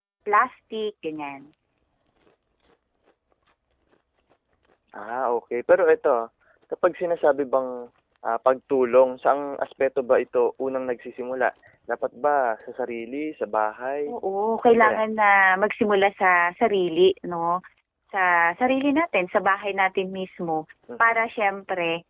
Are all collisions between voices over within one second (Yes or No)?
Yes